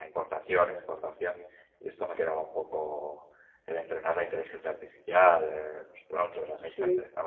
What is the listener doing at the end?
listening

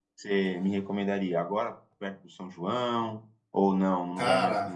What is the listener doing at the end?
listening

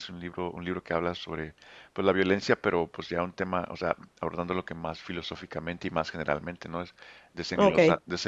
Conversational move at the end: listening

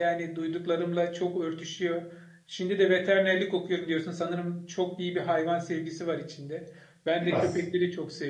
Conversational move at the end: listening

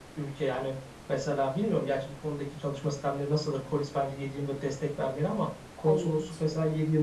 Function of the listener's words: listening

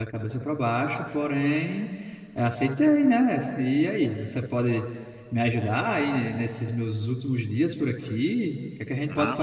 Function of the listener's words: listening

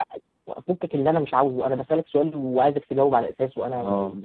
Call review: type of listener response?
listening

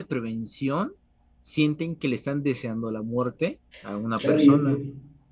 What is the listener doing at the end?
taking over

